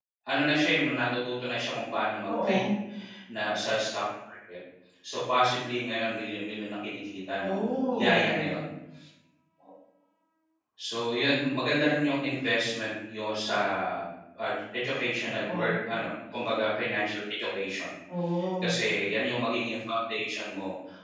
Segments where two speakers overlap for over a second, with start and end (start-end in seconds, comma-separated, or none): 7.4-8.6